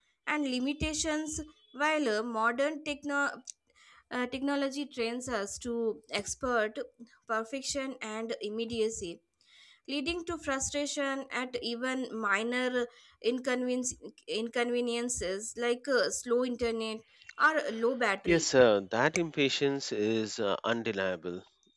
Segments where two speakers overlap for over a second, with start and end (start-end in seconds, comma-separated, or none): none